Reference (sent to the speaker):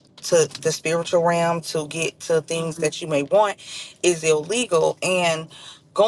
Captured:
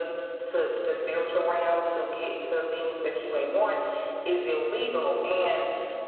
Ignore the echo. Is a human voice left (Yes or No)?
No